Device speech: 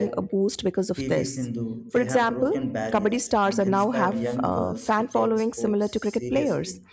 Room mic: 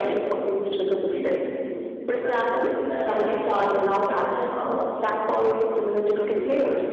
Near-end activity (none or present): none